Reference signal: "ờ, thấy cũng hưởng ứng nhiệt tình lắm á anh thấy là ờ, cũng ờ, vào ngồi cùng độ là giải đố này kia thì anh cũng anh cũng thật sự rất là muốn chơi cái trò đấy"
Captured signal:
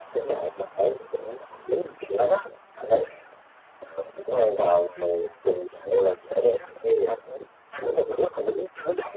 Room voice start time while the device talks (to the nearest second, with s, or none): none